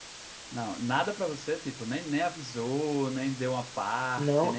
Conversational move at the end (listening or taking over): taking over